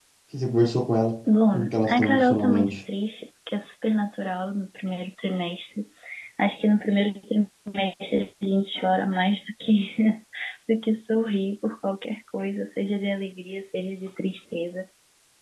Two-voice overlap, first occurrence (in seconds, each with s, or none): 1.5 s